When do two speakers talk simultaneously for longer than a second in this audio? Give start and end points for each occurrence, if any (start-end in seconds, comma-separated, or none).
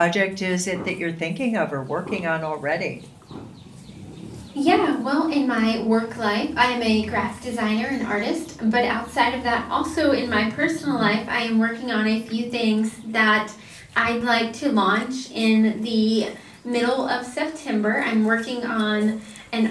none